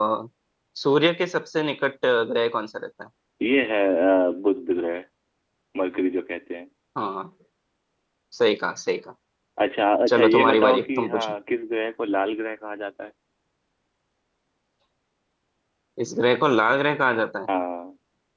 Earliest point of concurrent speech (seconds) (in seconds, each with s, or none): 10.1 s